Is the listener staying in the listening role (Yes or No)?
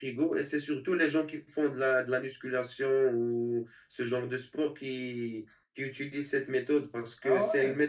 Yes